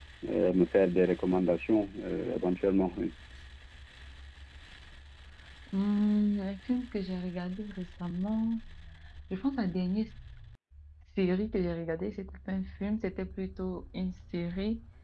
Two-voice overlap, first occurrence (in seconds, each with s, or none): none